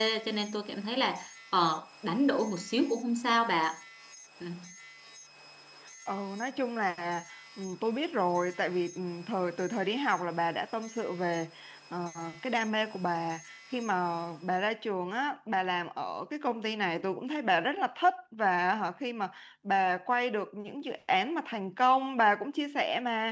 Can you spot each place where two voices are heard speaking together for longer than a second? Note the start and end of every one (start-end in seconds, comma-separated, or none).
none